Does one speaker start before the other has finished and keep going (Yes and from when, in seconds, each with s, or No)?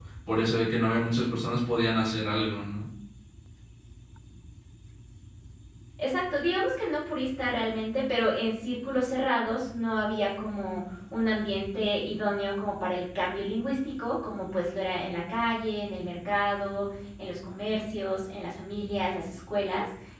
No